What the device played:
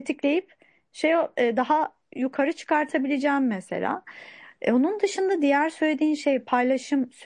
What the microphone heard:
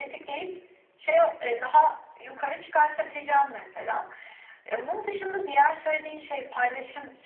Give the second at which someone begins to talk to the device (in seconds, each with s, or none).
none